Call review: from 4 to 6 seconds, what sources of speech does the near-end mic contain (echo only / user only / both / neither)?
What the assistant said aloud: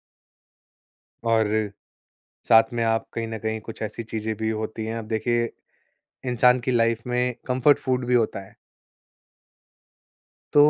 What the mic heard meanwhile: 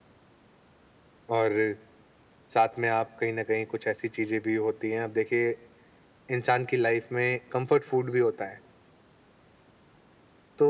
echo only